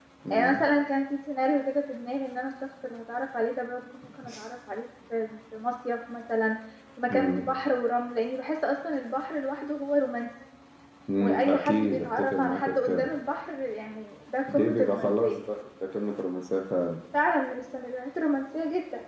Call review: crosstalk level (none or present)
present